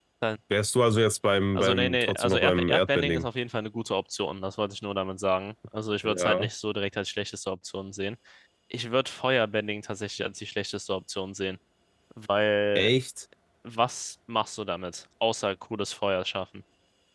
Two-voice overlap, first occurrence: 1.6 s

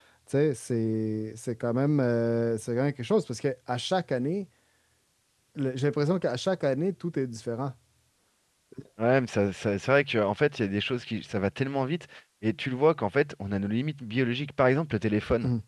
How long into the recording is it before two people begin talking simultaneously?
none

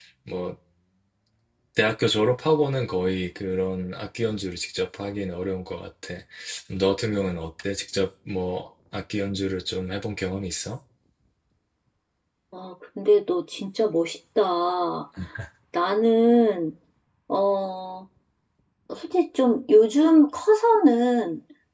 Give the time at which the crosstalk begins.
none

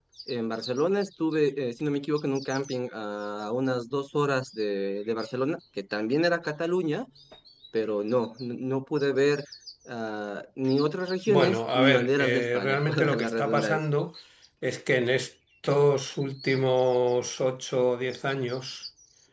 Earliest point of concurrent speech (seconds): 11.3 s

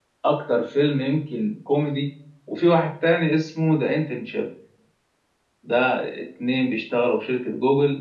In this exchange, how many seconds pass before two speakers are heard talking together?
none

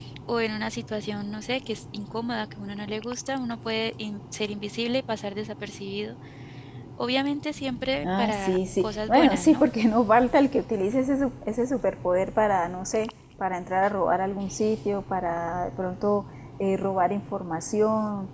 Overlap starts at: 8.0 s

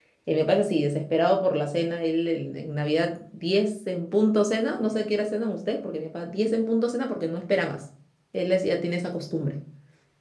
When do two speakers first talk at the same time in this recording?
none

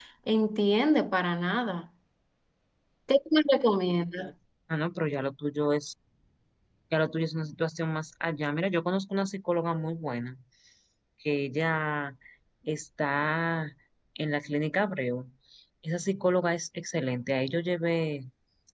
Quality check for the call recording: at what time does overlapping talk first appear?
none

